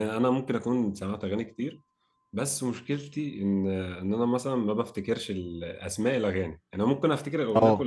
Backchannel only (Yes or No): Yes